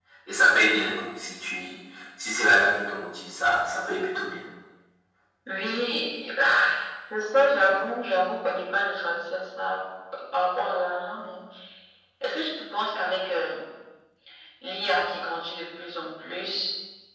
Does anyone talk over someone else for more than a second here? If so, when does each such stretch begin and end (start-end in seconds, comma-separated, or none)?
none